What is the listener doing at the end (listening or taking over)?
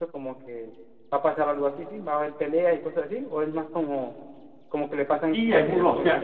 taking over